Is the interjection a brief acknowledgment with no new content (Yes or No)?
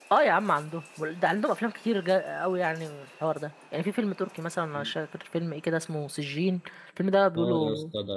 No